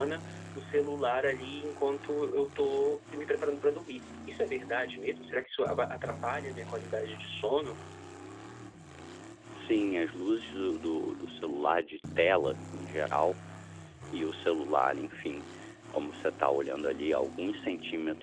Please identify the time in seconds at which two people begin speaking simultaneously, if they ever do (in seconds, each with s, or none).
none